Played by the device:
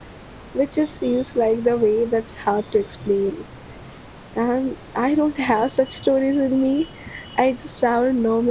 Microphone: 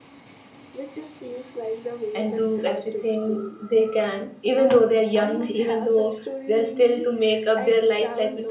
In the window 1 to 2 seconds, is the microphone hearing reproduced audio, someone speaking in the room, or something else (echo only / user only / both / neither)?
echo only